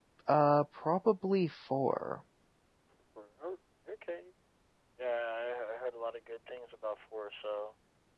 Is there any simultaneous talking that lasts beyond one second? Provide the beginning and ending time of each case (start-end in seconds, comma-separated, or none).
none